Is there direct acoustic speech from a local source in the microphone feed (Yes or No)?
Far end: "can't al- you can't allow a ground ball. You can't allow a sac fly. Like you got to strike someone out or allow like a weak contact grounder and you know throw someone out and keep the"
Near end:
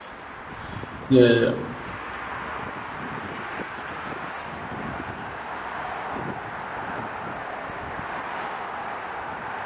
Yes